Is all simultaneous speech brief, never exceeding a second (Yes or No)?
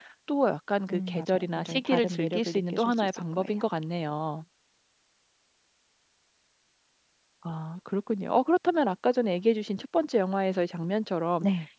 No